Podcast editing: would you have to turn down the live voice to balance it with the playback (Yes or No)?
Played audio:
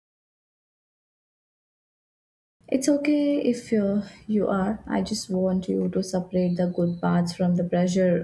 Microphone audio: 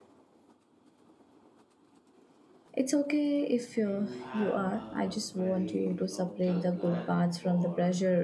No